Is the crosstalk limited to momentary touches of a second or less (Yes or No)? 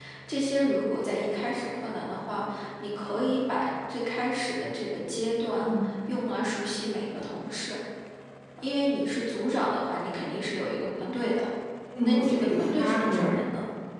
No